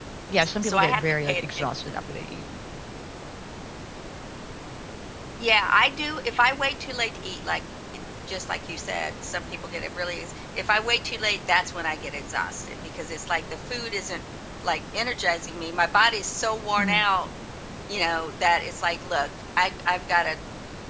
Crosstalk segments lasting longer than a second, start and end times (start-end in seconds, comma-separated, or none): 0.6-2.0